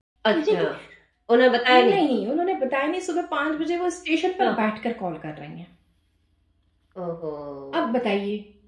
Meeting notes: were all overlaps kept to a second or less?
Yes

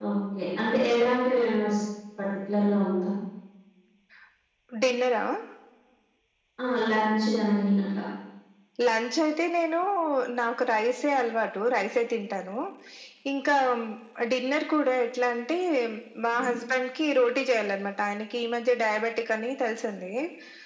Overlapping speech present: No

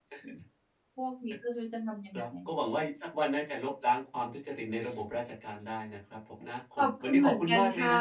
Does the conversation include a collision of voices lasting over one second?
Yes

